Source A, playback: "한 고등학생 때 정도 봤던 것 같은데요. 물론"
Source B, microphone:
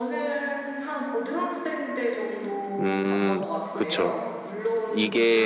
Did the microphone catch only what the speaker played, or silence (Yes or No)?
No